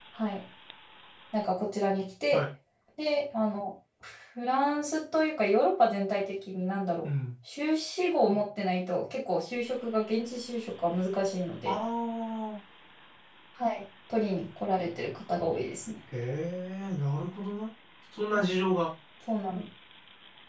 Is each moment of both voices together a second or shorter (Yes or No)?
Yes